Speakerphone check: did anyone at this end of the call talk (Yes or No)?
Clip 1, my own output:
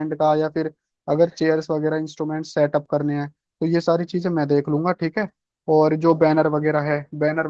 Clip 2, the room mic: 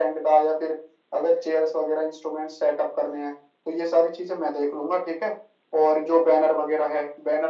No